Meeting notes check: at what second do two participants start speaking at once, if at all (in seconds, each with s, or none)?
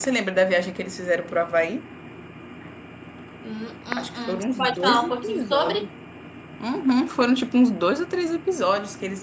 4.0 s